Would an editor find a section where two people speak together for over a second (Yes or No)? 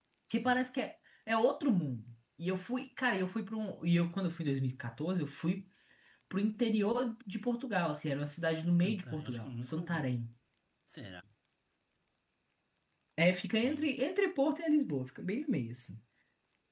Yes